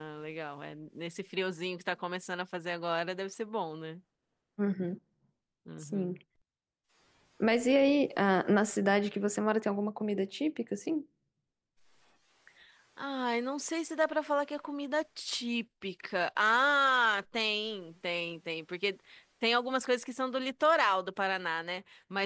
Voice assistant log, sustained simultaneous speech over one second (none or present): none